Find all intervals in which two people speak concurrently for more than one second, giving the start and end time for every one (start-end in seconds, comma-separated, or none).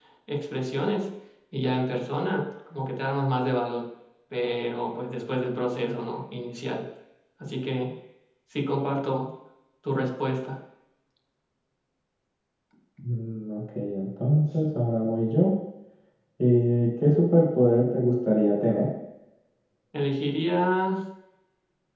none